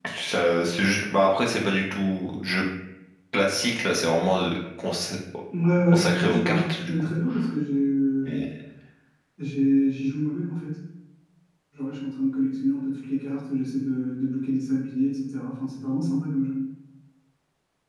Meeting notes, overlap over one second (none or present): present